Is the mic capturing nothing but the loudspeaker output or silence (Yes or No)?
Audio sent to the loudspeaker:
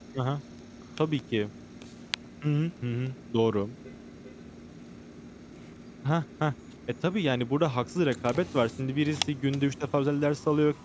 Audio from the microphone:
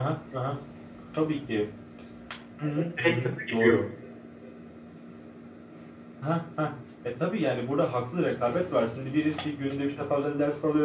No